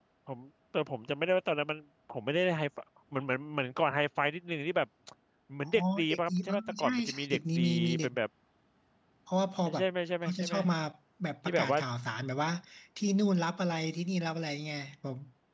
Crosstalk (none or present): present